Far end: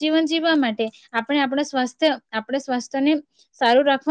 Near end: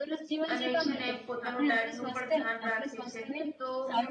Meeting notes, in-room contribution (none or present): present